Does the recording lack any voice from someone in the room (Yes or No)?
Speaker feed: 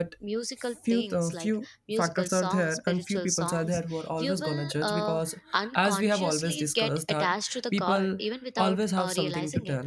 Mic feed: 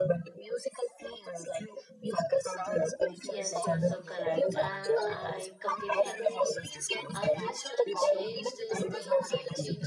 No